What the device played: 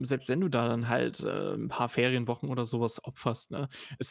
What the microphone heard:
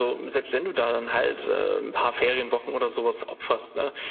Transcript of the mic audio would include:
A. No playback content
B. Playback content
B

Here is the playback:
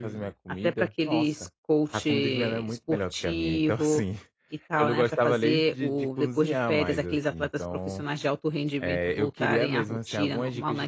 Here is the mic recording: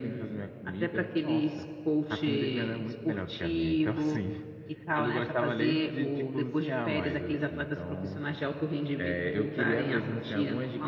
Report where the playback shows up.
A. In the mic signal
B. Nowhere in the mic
A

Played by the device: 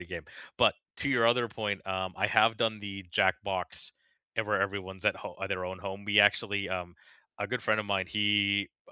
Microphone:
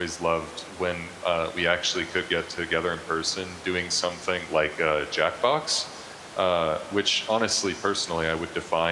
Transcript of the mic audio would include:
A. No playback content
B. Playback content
A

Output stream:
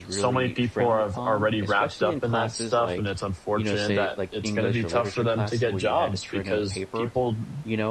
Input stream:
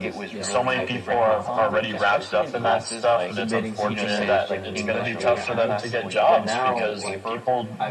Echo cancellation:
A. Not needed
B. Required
B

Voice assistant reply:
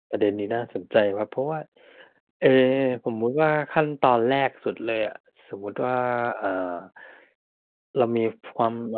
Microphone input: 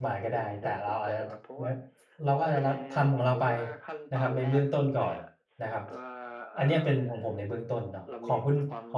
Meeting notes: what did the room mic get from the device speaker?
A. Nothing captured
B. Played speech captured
B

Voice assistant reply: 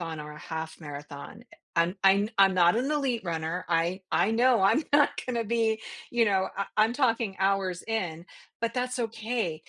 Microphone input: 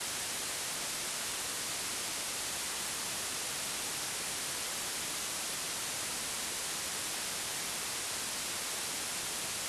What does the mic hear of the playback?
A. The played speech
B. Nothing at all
B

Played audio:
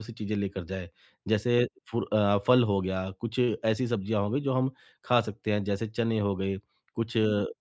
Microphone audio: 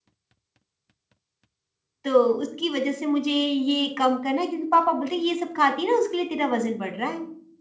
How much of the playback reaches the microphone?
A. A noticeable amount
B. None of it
B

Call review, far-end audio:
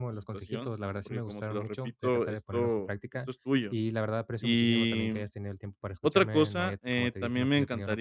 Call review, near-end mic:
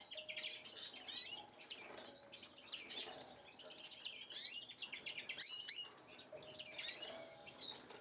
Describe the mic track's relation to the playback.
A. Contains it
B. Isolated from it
B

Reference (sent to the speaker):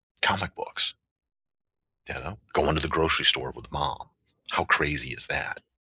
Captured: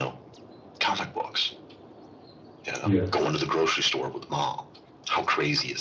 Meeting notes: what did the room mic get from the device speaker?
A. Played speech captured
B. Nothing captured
A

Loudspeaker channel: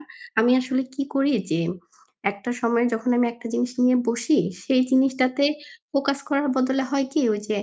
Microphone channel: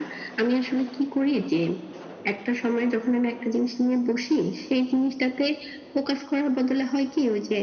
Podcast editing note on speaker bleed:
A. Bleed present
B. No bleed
A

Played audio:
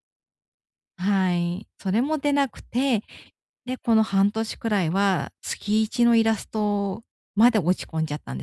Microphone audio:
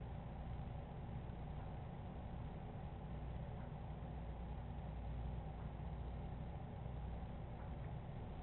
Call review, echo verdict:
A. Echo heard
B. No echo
B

